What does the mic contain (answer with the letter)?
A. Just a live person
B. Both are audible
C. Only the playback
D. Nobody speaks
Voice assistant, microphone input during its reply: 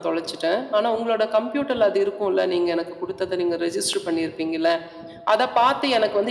C